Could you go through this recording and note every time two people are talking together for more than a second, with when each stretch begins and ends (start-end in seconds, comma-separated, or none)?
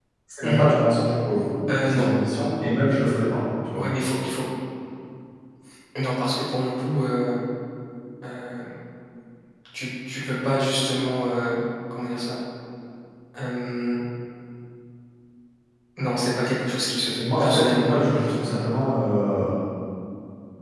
17.2-18.5